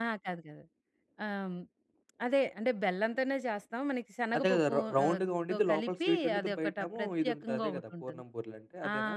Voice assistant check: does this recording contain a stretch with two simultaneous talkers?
Yes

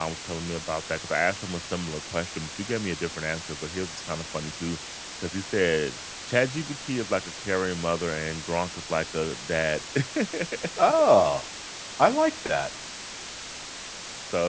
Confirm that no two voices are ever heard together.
Yes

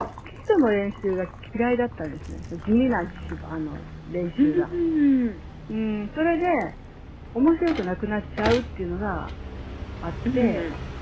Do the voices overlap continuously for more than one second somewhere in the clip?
No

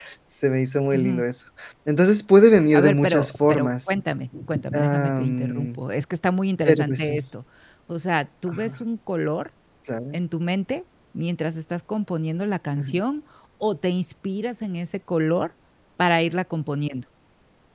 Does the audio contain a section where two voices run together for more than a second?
Yes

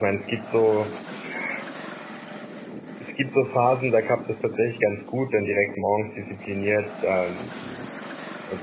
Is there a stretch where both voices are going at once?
No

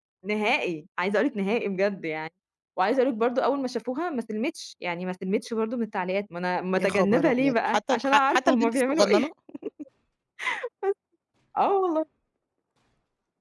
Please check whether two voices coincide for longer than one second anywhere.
Yes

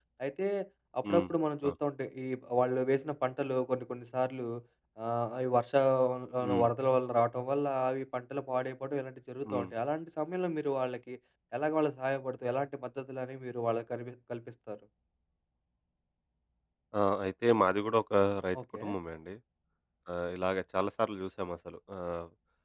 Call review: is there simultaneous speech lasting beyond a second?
No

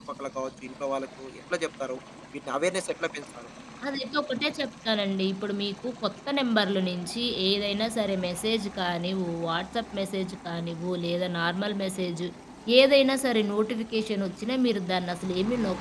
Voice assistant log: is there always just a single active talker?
Yes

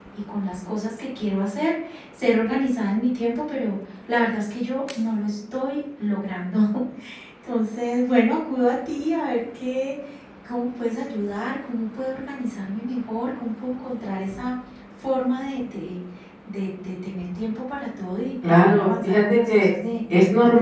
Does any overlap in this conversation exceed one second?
Yes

